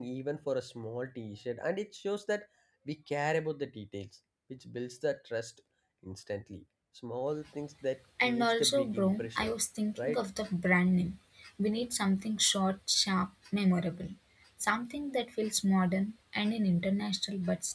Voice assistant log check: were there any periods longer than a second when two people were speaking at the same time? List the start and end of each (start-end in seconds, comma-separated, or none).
8.2-9.5